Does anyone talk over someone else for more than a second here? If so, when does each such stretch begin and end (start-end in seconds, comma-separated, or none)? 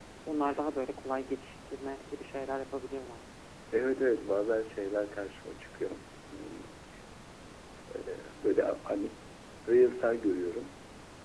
none